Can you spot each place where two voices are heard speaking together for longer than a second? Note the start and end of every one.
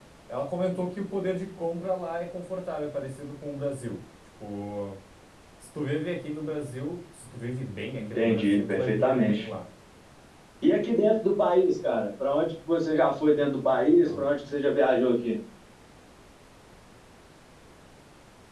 8.0-9.5

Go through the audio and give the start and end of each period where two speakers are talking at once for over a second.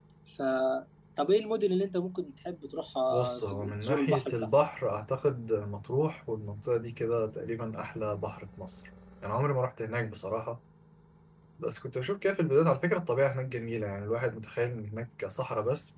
3.1-4.5

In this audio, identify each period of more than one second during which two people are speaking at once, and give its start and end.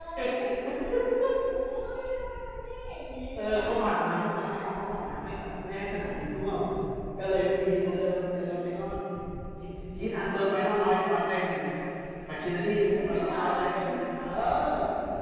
12.9-14.2

